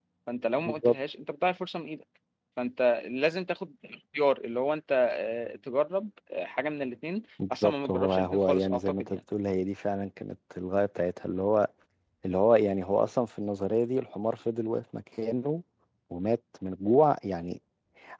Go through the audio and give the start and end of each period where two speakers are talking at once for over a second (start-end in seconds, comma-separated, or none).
7.5-9.2